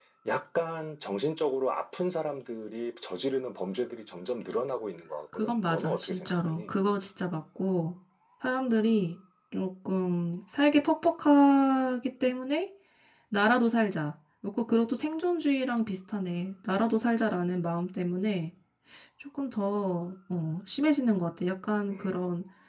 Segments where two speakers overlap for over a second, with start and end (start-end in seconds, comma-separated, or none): 5.3-6.6